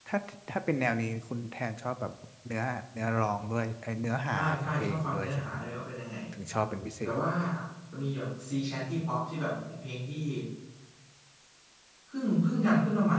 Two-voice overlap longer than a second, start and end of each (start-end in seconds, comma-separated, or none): 4.3-5.6